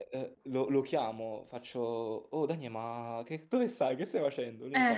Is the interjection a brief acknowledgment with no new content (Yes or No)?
Yes